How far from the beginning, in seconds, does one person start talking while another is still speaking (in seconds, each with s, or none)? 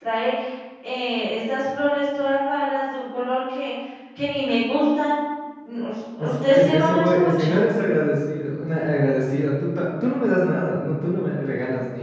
6.2 s